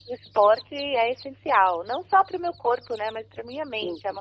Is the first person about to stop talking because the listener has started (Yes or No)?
Yes